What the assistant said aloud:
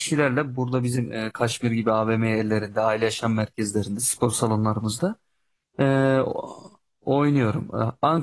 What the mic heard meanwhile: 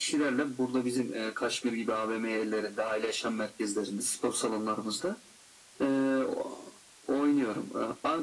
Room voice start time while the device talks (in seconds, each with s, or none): none